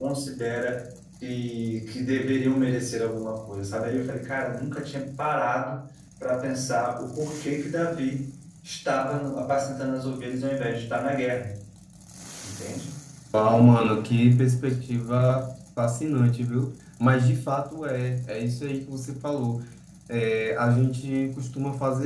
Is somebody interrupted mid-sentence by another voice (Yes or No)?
No